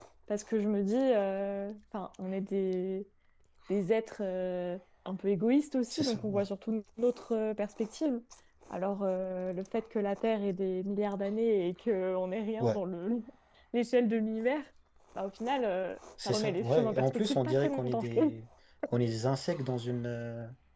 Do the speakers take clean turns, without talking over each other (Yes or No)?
No